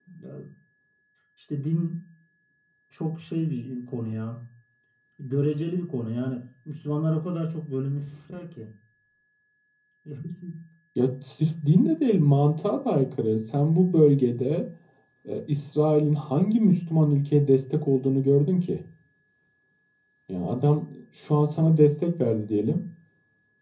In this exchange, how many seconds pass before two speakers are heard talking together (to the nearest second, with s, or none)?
none